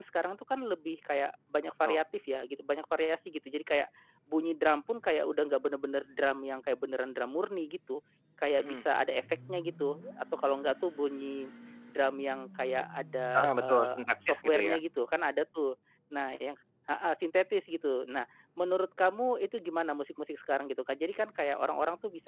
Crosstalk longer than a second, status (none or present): present